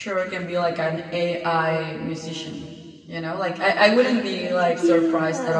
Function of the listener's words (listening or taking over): listening